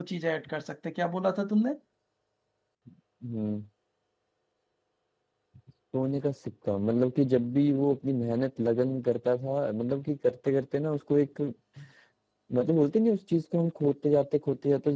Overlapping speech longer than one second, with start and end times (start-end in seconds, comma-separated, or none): none